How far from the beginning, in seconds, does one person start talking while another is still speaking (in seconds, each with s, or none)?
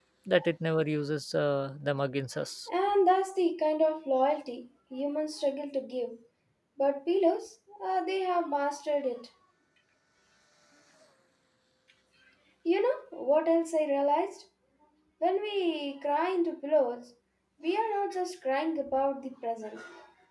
none